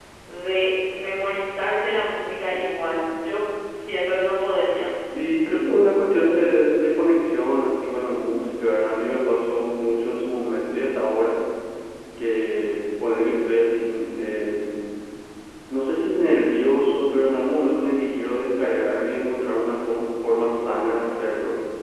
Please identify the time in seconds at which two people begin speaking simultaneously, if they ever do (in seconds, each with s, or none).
none